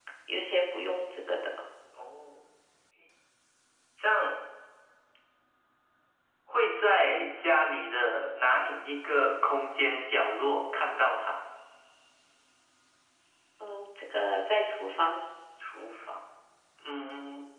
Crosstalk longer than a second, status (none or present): none